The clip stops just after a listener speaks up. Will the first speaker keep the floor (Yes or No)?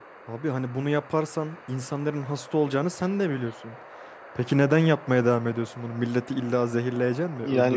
No